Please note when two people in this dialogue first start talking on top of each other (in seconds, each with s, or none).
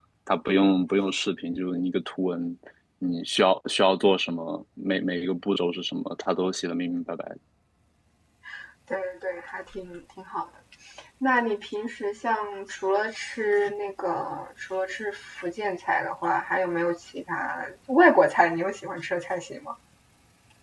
none